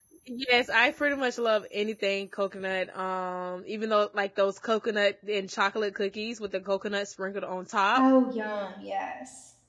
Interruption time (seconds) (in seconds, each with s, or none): none